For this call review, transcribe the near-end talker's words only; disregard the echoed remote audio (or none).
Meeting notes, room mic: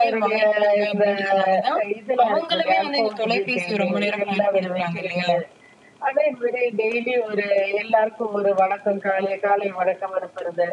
none